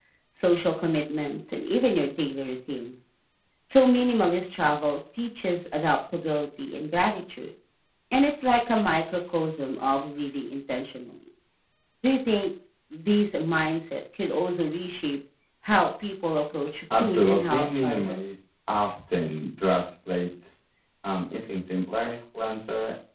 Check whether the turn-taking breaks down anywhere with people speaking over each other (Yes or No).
Yes